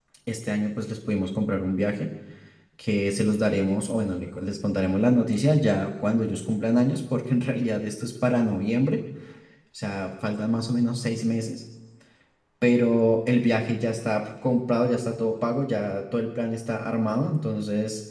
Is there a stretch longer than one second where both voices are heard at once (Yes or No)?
No